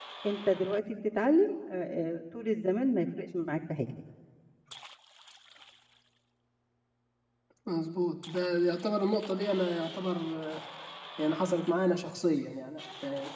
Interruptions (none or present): none